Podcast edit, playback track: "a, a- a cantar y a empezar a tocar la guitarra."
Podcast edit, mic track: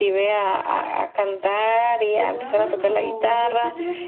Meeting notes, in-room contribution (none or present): present